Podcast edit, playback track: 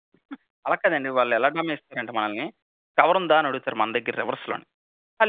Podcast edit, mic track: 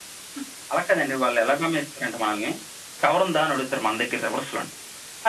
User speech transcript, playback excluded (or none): none